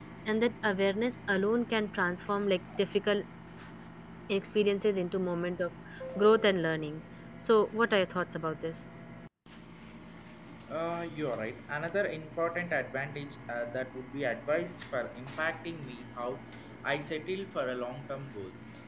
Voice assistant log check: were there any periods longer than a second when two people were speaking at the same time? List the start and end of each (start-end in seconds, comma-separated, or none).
none